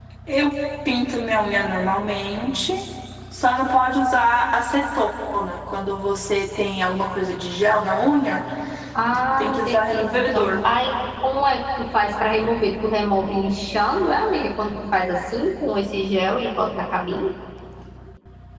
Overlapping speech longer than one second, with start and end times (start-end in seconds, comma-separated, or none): 9.4-10.6